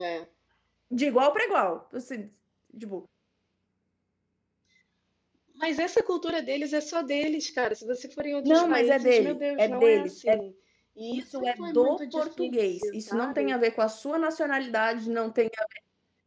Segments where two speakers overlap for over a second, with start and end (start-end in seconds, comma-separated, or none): 8.4-10.4, 11.1-13.5